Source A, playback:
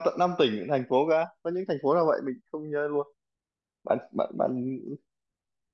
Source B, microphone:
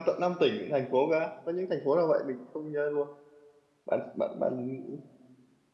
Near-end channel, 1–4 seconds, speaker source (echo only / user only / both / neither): echo only